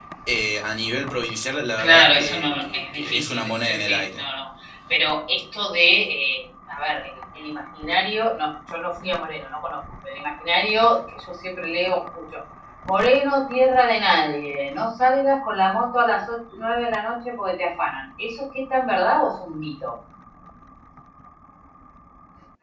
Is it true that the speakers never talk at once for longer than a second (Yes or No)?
No